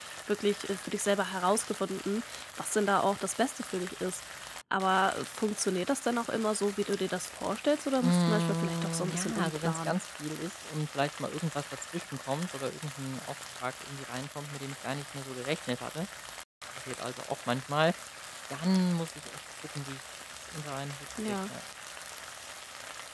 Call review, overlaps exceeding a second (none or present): present